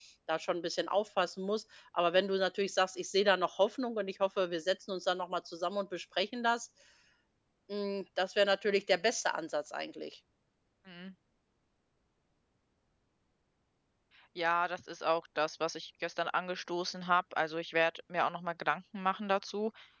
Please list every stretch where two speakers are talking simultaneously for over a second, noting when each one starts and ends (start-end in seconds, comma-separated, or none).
none